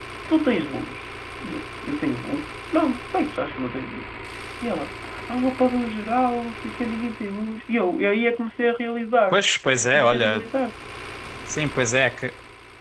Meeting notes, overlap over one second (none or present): none